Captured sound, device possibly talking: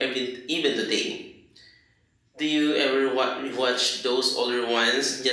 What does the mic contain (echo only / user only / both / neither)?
echo only